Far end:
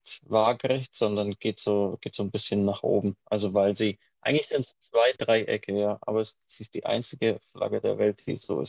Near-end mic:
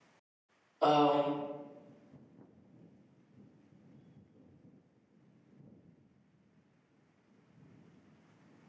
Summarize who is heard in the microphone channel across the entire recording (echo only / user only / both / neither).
user only